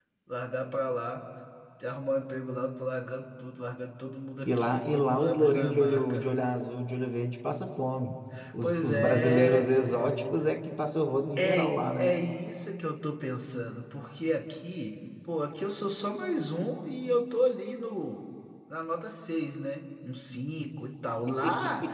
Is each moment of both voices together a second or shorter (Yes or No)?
No